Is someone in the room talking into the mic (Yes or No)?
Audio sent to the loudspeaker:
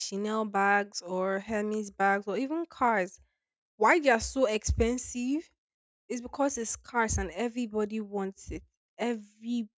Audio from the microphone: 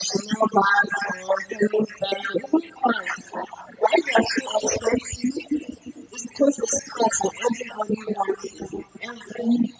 No